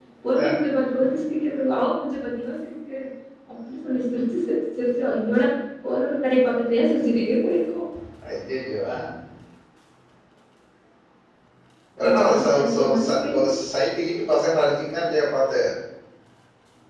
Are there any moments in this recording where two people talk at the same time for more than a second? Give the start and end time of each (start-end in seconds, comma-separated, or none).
12.1-13.5